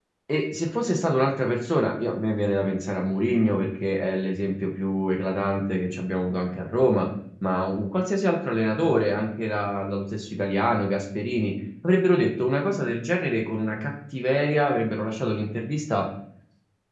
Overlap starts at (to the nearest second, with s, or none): none